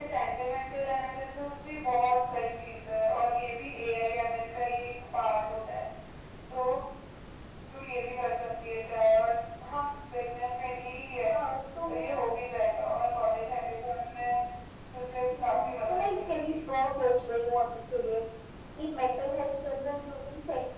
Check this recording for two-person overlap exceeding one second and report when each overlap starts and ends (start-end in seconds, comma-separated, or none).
15.4-16.7